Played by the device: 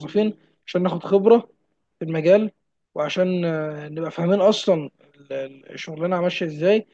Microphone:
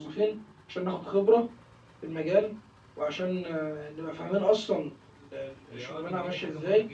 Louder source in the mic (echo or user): echo